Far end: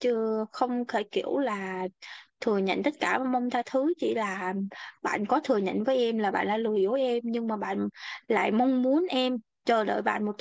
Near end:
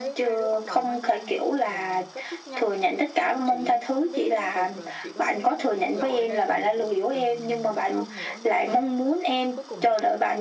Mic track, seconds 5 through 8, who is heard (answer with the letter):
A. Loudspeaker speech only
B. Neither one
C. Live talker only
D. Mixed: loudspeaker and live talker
D